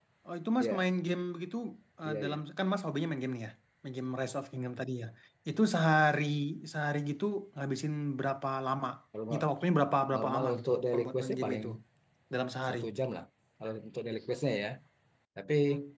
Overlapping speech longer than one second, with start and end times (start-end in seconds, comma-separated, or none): 10.2-11.6